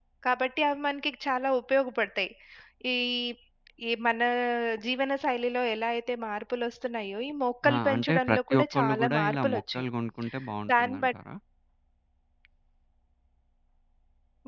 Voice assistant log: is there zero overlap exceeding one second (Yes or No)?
No